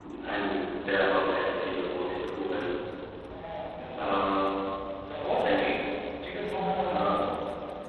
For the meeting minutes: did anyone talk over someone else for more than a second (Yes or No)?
No